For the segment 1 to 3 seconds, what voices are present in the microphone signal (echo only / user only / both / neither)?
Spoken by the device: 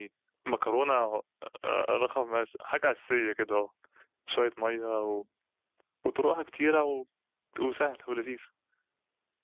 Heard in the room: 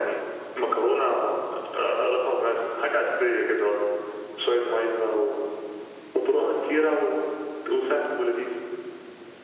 echo only